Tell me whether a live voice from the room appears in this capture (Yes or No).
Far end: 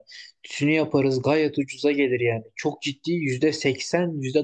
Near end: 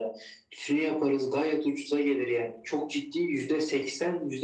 No